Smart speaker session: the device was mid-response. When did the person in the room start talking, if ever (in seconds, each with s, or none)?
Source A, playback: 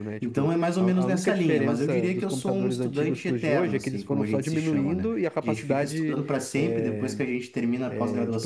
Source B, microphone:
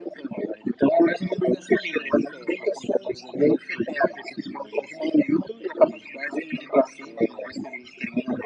none